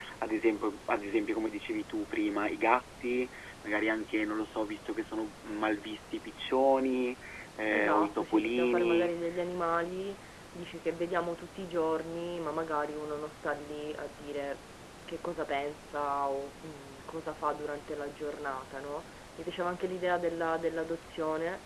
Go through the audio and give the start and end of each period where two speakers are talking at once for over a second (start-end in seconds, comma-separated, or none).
7.7-9.1